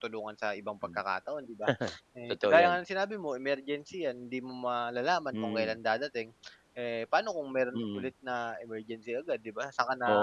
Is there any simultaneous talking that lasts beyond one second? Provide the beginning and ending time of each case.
none

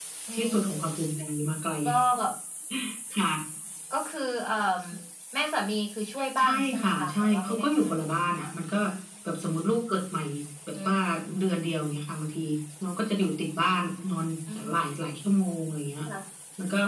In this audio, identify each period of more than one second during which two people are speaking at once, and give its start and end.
6.4-8.2

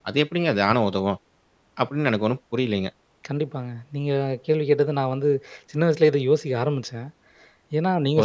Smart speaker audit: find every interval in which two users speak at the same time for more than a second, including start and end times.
none

